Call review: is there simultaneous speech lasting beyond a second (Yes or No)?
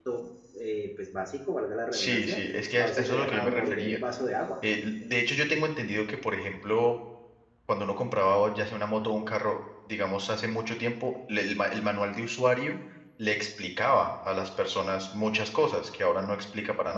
Yes